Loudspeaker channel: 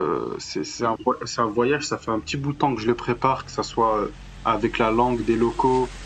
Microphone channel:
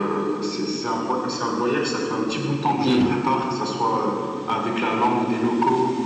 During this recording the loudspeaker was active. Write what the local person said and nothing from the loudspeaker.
Oui.

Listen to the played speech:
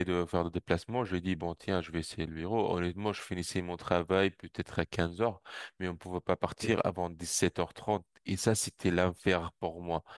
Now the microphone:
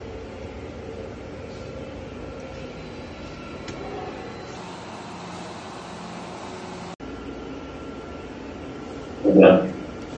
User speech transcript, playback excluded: très bien.

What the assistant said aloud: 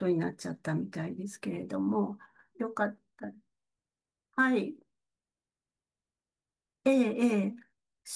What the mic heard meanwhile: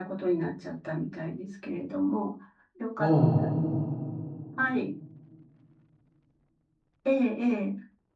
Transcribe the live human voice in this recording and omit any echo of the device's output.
うん。

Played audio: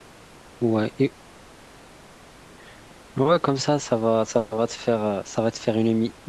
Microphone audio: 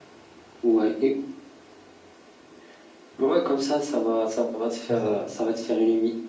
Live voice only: c'est ça.

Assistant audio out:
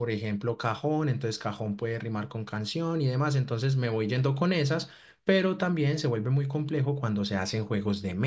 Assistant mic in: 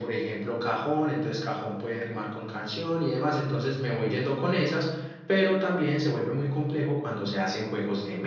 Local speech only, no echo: none

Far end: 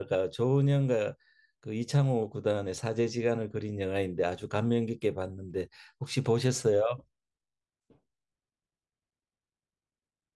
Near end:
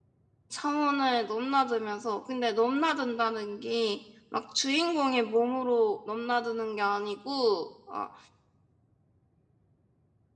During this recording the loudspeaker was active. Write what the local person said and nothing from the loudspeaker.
차원을 넘나들면서 근데 넘나든다는 게 막 주인공의 몸으로 넘나드는 게 아니고 아,

